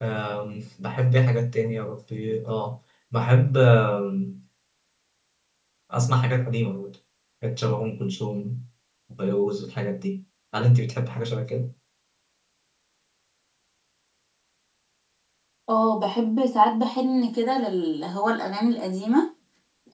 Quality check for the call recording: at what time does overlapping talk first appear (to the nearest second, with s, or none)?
none